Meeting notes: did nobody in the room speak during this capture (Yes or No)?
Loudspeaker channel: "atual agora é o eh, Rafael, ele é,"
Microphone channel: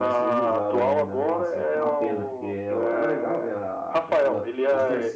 No